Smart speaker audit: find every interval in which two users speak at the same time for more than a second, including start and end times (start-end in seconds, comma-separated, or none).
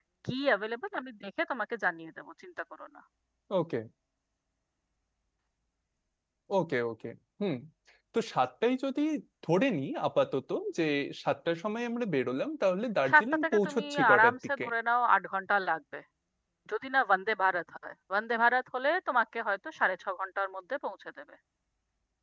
13.1-14.6